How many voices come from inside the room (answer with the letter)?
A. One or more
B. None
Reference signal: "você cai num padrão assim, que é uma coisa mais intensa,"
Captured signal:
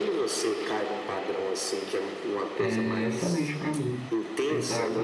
A